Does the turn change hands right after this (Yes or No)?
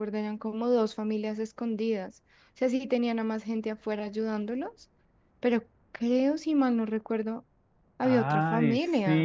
Yes